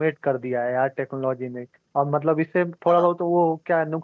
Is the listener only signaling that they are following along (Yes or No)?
Yes